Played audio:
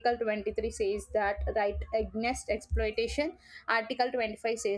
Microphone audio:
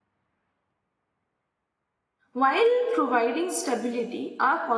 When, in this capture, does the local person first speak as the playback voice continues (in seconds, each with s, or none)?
2.3 s